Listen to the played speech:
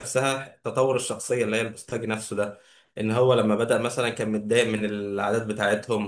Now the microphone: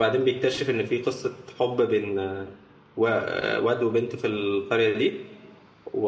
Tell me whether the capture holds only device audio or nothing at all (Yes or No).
No